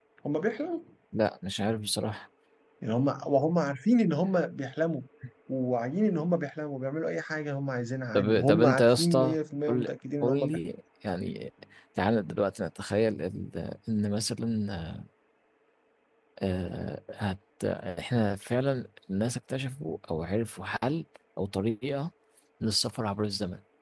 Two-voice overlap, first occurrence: 8.2 s

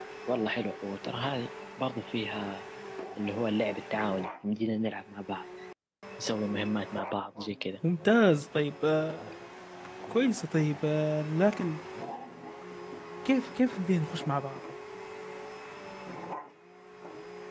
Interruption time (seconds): none

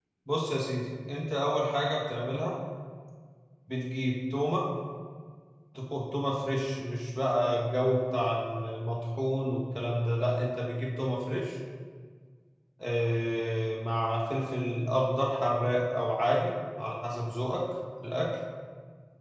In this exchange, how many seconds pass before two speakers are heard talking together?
none

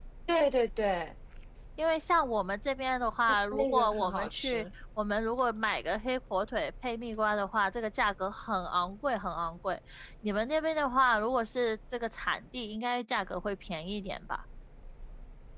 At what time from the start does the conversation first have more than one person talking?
3.3 s

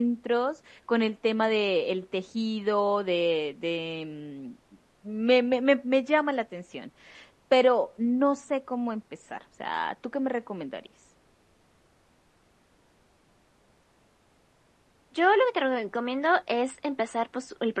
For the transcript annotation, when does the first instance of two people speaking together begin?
none

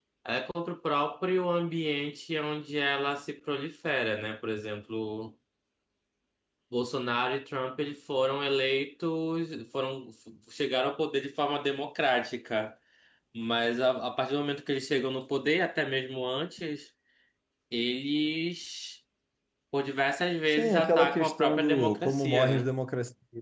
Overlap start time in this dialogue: 20.5 s

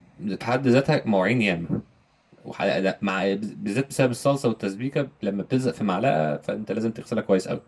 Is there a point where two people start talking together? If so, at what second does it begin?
none

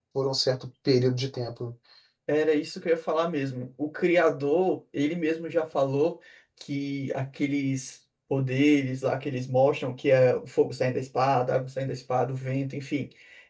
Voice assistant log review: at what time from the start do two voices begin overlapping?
none

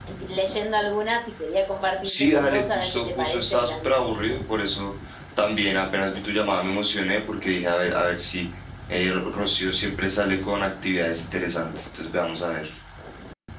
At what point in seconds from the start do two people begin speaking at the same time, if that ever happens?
2.0 s

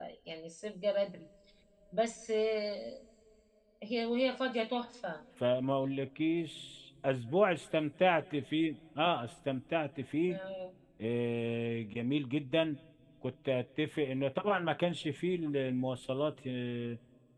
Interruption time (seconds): none

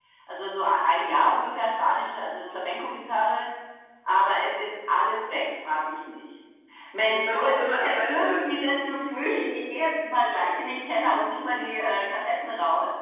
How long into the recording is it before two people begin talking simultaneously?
7.0 s

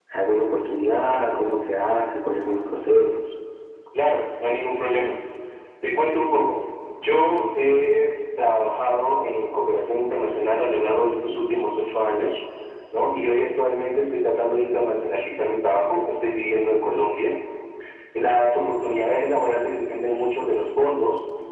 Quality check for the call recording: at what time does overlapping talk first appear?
none

